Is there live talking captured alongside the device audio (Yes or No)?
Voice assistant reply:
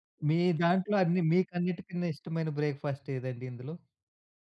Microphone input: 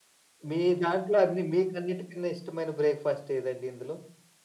No